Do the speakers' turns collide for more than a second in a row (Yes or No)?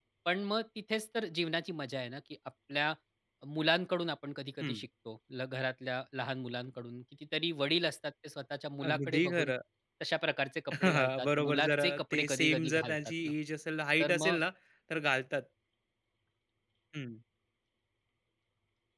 Yes